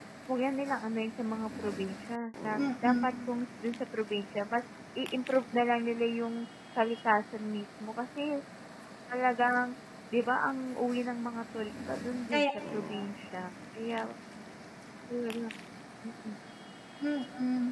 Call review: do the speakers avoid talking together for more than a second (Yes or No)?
Yes